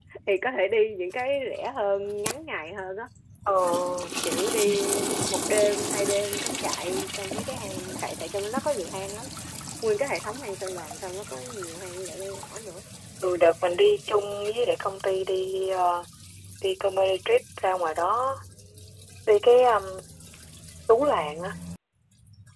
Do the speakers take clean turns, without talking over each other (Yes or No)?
Yes